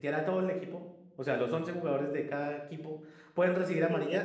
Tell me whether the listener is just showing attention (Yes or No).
Yes